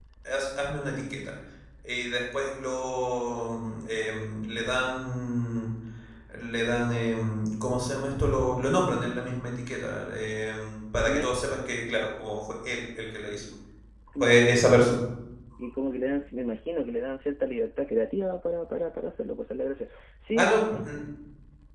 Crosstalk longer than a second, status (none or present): none